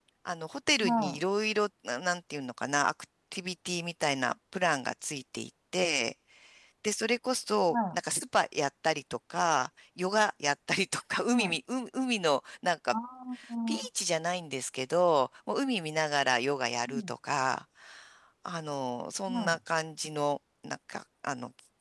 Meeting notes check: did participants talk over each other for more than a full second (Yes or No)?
No